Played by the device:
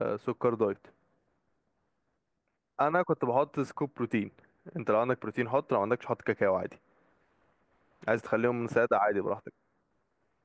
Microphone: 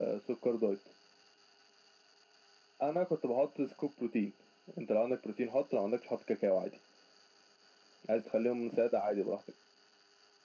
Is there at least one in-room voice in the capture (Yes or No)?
No